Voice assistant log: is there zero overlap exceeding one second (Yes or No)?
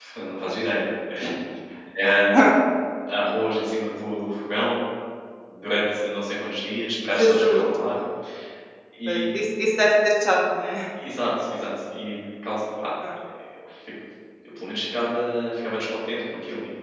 Yes